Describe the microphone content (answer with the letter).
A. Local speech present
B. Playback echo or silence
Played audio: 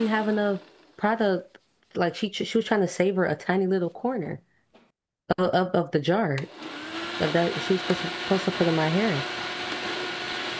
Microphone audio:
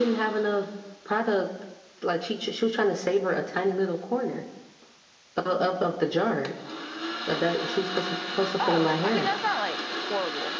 A